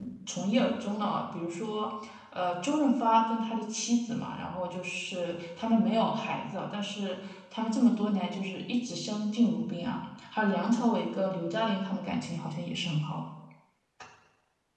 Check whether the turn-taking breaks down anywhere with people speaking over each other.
No

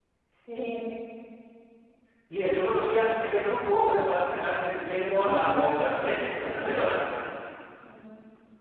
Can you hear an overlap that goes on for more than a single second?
Yes, from 5.2 s

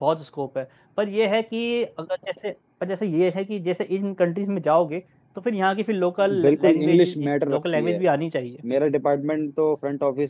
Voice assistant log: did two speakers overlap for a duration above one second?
Yes, from 6.2 s

